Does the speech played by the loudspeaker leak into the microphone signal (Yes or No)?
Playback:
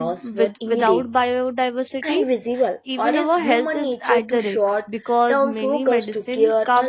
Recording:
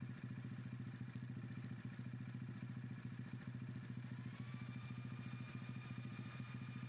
No